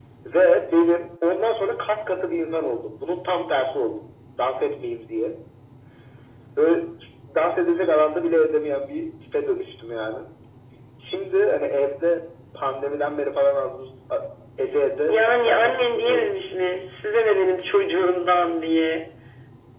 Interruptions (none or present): present